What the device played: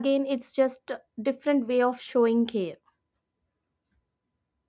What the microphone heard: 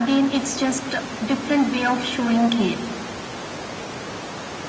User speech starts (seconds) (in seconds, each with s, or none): none